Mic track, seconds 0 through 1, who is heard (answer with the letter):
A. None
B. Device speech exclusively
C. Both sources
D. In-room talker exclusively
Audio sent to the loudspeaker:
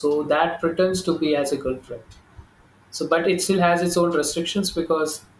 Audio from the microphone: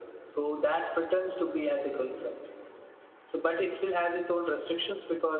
B